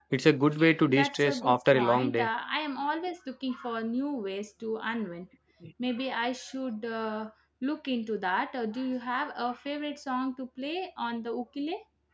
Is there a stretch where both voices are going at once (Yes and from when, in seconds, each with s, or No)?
Yes, from 0.9 s